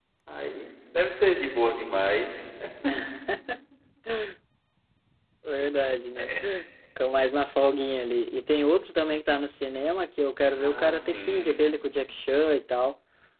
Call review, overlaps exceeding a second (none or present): present